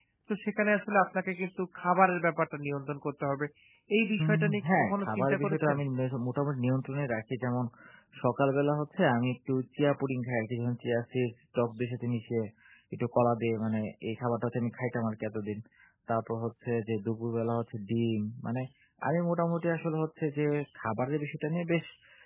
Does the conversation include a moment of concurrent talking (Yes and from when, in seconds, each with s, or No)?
Yes, from 4.2 s